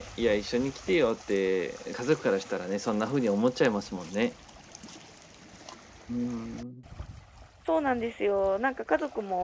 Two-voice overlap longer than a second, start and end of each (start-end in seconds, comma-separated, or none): none